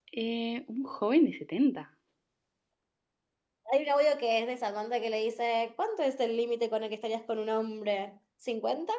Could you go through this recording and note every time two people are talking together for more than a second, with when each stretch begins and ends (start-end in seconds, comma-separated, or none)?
none